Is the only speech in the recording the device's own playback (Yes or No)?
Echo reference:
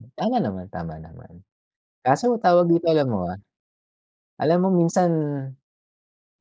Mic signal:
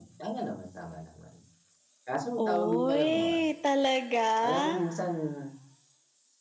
No